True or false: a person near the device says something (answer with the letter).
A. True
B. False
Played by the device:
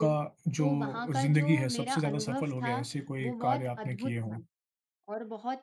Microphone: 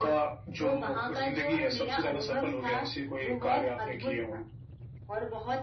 B